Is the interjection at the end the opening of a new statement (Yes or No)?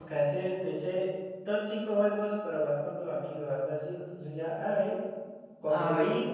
No